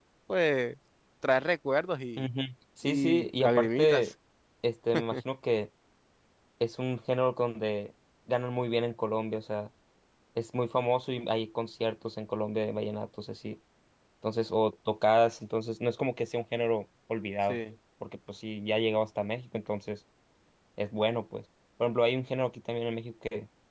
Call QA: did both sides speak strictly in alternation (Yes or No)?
No